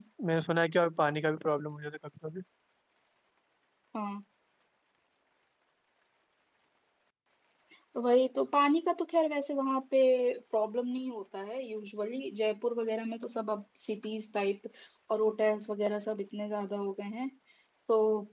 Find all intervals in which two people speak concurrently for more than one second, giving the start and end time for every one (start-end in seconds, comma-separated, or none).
none